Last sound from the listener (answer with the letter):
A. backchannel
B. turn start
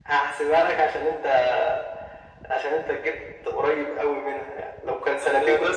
B